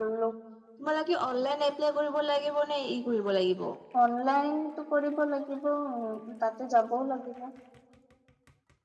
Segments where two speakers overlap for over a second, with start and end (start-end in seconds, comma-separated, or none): none